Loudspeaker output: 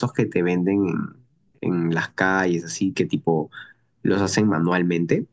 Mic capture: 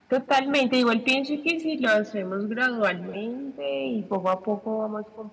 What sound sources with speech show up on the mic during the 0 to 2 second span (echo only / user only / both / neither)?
user only